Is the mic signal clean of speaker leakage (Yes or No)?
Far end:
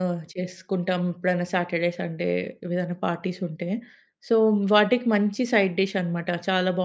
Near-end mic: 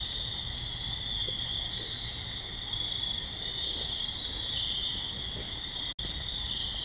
Yes